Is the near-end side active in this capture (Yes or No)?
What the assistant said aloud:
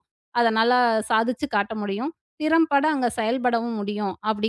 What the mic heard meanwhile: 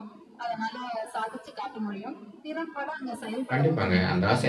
Yes